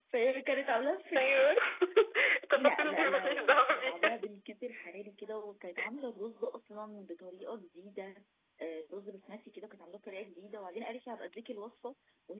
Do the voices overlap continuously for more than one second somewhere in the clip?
Yes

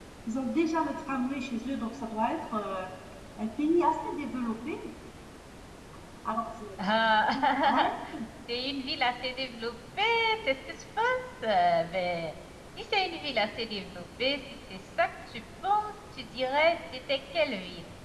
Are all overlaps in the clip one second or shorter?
Yes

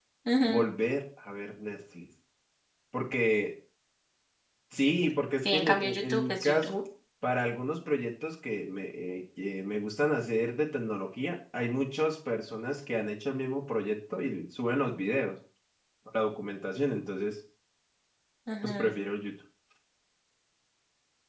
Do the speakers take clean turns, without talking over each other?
No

